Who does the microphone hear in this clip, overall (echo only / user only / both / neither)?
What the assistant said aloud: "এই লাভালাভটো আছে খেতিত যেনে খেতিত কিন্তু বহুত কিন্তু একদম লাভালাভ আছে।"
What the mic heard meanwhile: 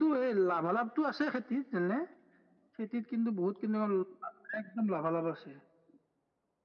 echo only